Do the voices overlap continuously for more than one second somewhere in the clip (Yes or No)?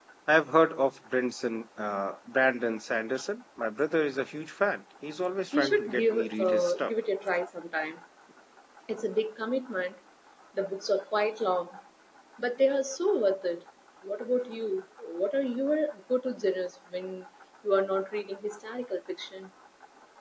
Yes